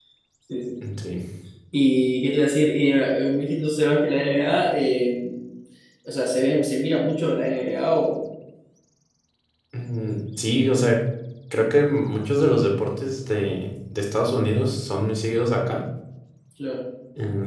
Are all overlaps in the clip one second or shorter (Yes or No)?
Yes